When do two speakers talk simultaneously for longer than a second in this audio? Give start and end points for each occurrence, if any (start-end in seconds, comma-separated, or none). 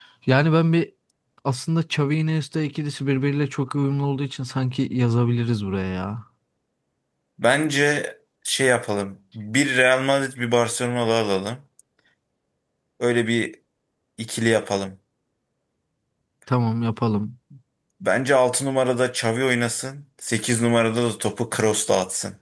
none